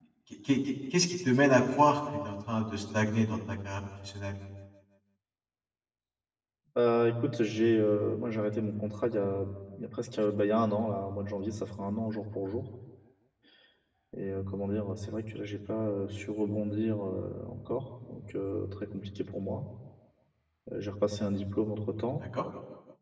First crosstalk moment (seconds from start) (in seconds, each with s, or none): none